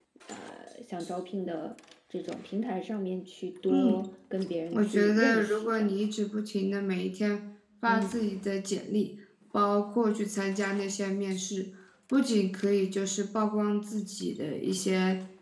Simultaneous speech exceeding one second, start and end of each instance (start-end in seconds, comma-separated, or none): 4.7-5.9